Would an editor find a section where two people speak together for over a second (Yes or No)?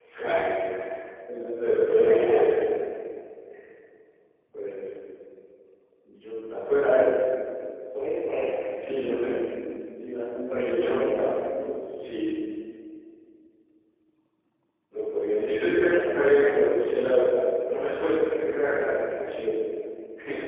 Yes